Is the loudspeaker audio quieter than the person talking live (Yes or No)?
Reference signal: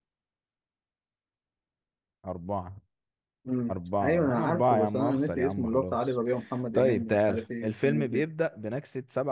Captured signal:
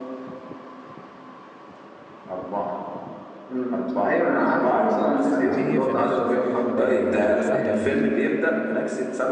No